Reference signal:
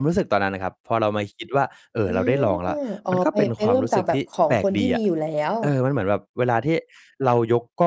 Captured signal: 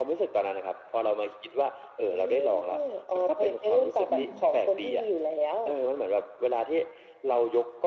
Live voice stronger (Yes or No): No